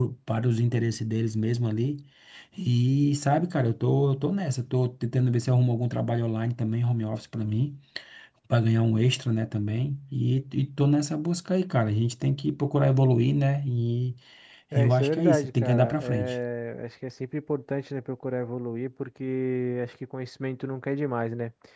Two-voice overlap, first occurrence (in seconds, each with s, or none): 14.8 s